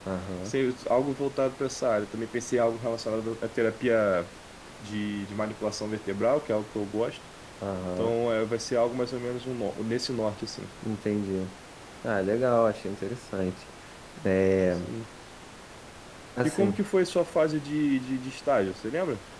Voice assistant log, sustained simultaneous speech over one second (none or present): none